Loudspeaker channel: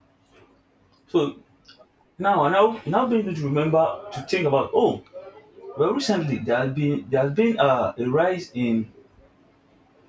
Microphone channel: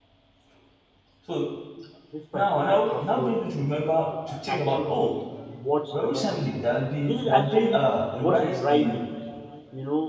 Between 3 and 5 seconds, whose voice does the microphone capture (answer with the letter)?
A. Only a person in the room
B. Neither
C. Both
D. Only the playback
C